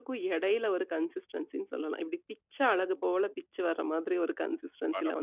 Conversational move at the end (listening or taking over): taking over